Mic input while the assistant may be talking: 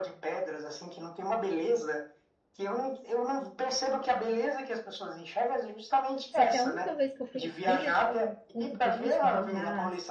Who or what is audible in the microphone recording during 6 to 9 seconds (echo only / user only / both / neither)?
both